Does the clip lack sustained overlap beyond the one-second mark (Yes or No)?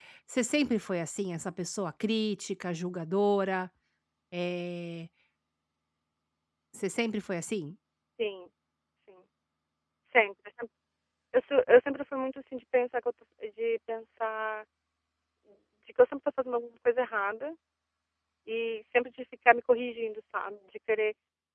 Yes